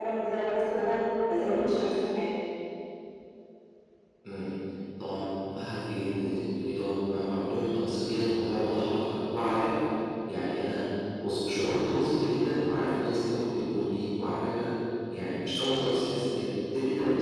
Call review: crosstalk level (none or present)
none